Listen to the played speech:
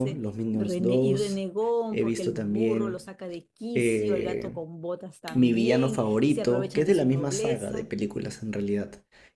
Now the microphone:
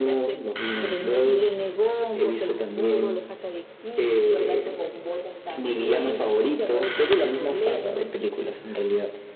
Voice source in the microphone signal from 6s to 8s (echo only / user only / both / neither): echo only